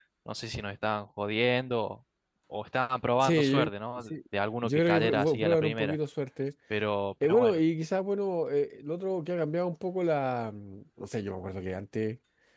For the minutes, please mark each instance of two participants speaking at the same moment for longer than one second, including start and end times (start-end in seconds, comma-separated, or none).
4.6-6.0